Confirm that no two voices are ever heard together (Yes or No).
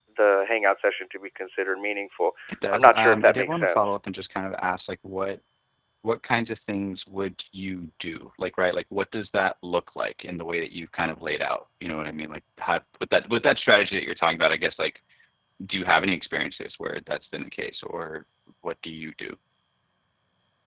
No